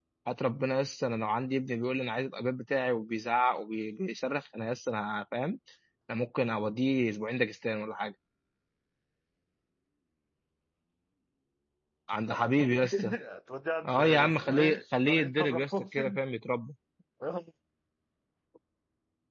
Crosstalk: present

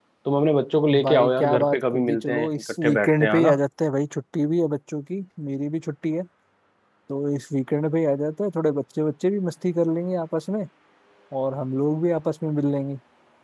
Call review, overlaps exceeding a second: present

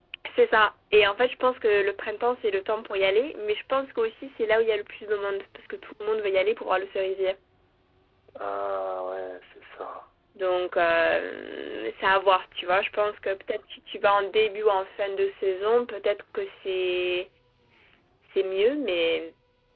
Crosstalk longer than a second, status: none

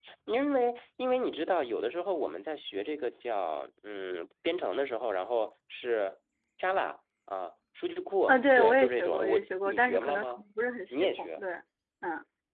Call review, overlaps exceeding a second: present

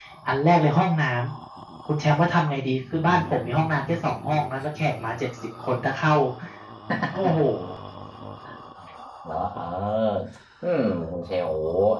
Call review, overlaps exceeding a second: none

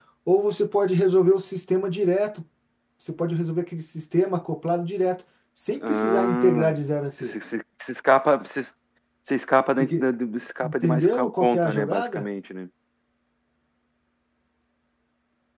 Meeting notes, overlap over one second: present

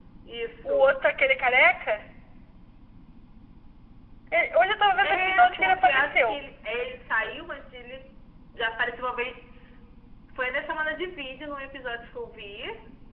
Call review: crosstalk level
present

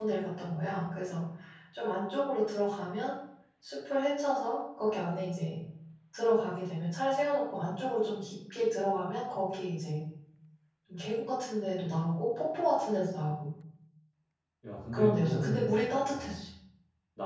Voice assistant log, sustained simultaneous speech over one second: present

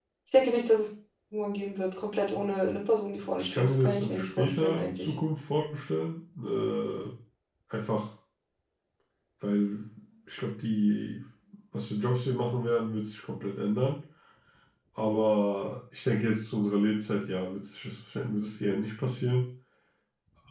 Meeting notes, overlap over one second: present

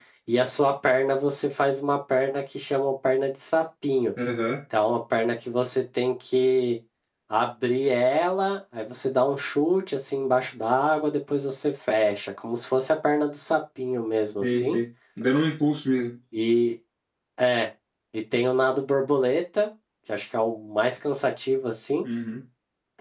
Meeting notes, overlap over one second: none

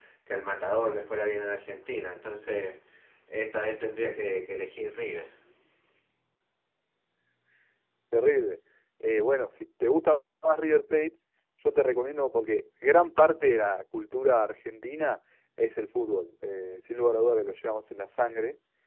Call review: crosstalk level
none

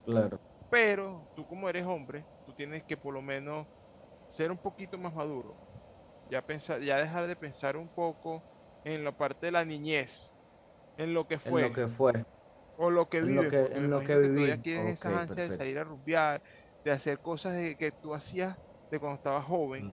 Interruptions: present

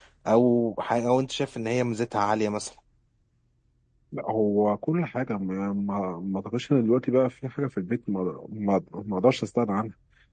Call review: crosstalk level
none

